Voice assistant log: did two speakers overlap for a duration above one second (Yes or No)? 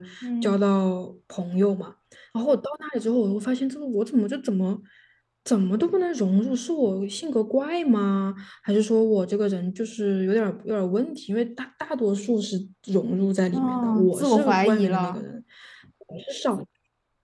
Yes